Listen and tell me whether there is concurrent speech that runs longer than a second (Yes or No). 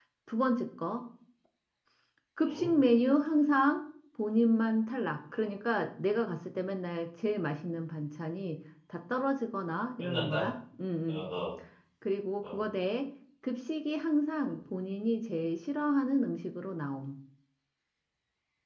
No